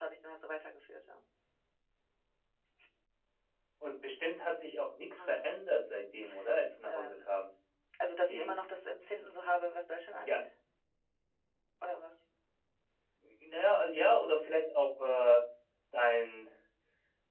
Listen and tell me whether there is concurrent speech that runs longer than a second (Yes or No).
No